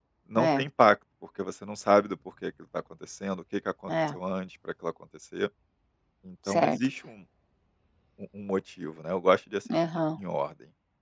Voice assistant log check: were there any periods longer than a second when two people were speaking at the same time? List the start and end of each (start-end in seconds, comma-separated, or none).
none